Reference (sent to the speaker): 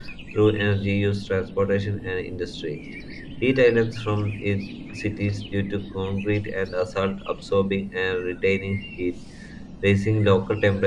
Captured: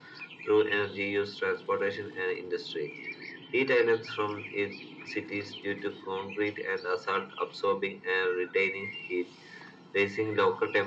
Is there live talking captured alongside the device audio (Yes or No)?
No